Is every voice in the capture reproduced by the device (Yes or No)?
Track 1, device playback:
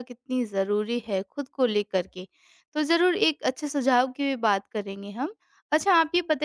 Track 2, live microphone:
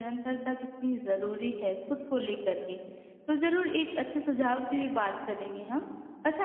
Yes